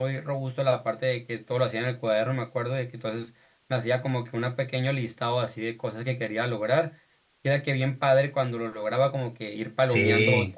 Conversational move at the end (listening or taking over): listening